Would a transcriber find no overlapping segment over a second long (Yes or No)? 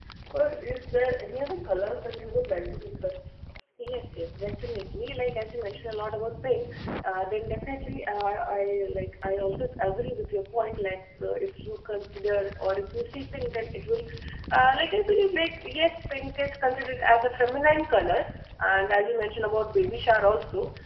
Yes